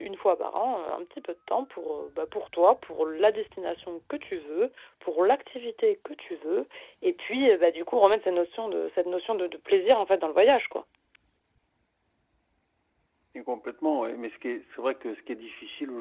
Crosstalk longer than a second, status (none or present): none